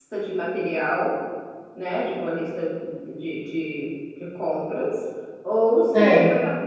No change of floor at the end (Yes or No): Yes